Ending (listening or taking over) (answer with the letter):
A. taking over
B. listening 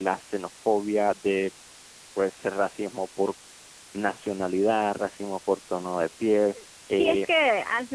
A